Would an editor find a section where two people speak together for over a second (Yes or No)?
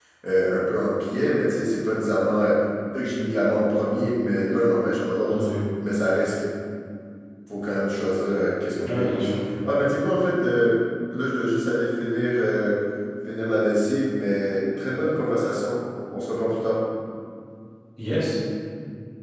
No